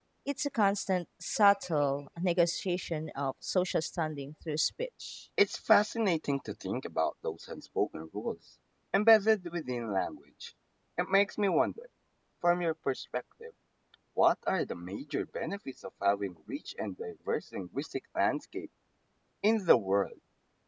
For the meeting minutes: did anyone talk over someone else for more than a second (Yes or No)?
No